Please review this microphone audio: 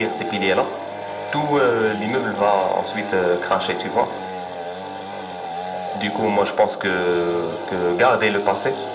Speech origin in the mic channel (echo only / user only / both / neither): echo only